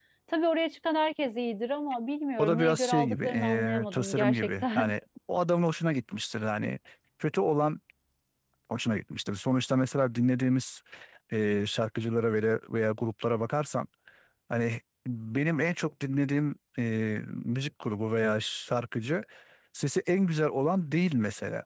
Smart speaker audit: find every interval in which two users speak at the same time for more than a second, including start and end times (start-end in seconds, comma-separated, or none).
2.4-4.9